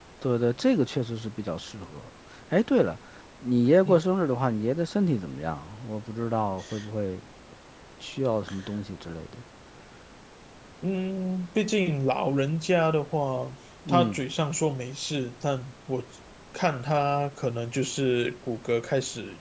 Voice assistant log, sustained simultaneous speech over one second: none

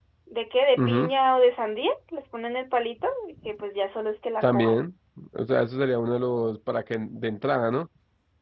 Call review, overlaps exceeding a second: none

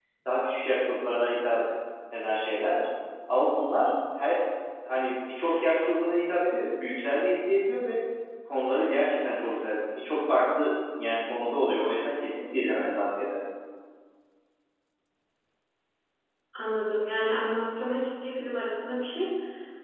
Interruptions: none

